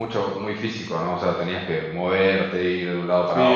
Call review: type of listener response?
taking over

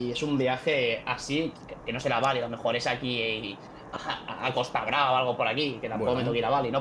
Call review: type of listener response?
listening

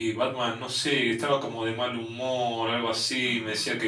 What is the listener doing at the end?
listening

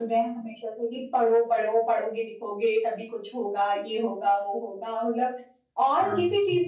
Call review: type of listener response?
listening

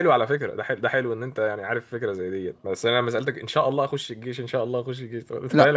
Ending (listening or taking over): taking over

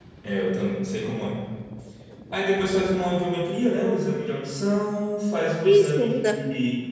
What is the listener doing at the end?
listening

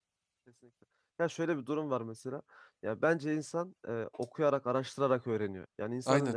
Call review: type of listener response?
listening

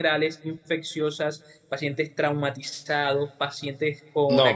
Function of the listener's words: listening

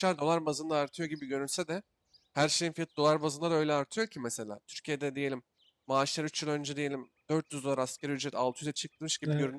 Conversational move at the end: listening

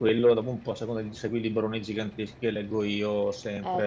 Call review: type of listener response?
listening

